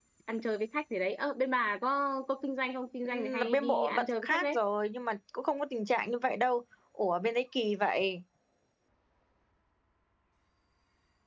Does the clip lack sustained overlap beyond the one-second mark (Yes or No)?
No